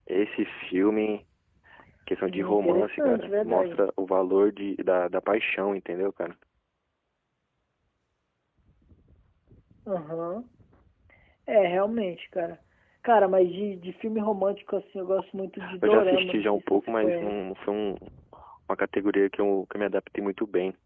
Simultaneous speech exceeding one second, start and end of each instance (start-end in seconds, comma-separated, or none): 2.3-3.8, 15.8-17.4